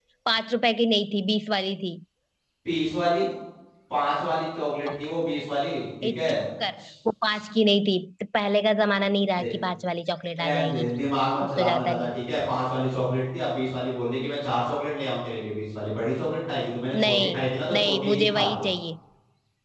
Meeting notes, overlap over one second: present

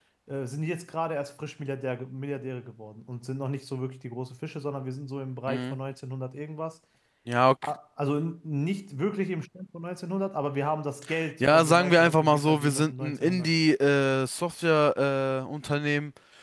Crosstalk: present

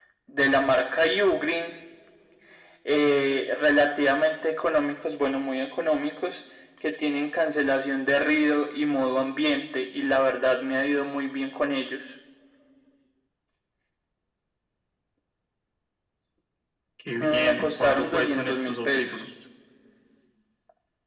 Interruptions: present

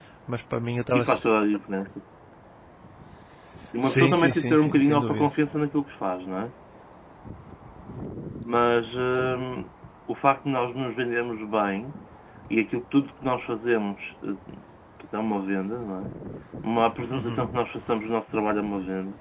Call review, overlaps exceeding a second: present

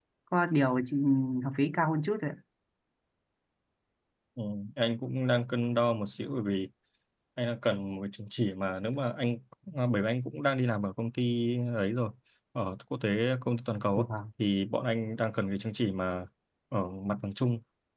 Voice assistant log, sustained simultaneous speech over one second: none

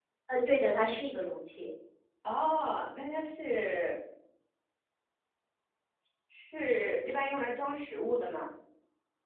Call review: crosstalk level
none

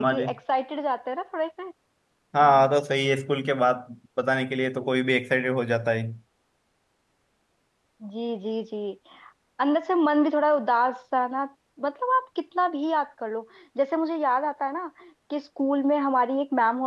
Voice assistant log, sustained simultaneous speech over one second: none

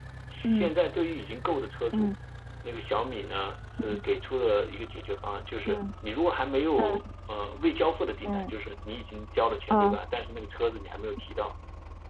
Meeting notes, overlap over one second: none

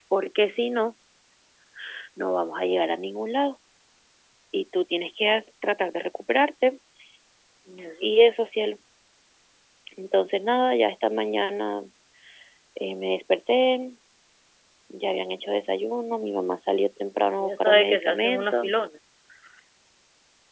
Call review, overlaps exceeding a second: present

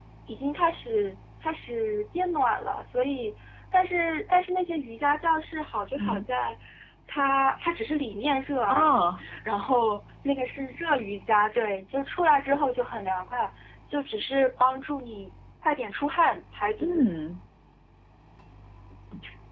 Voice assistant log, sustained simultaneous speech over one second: none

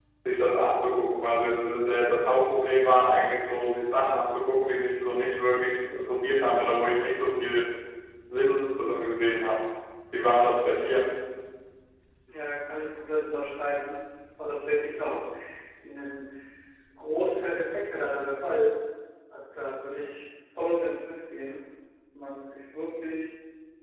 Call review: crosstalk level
none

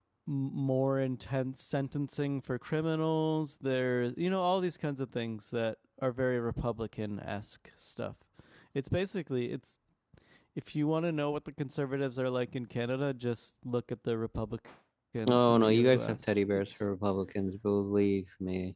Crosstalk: present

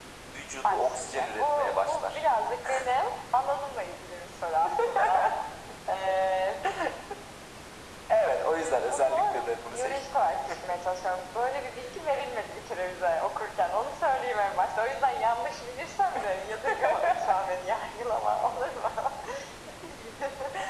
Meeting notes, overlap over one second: present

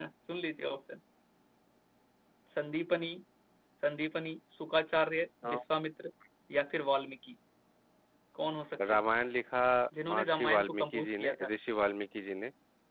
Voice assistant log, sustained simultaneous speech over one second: present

